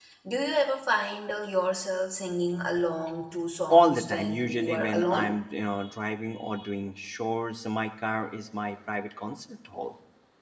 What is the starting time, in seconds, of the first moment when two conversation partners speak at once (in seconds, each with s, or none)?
3.7 s